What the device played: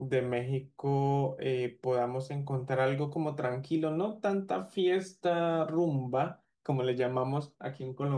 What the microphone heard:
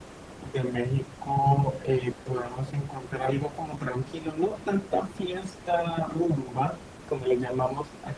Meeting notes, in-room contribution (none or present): none